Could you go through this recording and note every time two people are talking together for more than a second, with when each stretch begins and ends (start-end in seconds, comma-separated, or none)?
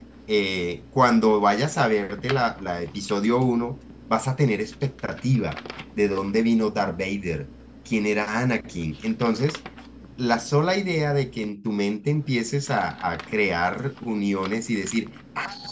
none